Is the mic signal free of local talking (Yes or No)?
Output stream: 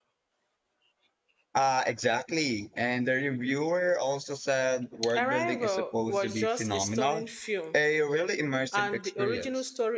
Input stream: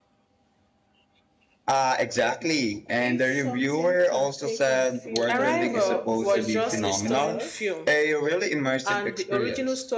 No